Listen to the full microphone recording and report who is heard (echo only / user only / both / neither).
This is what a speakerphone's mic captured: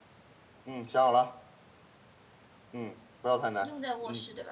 both